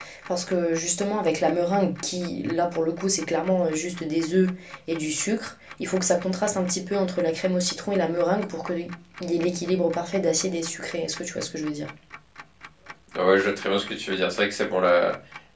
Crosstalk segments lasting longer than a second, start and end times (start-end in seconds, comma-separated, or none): none